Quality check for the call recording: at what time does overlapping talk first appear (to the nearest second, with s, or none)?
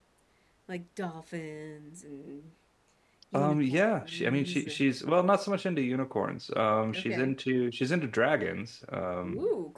3 s